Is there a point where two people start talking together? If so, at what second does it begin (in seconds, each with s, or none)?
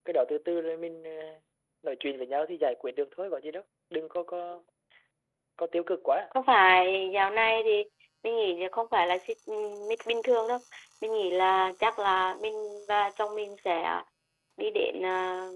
none